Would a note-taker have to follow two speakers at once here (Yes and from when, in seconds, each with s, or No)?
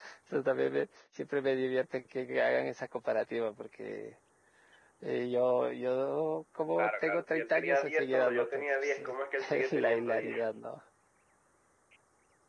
Yes, from 6.8 s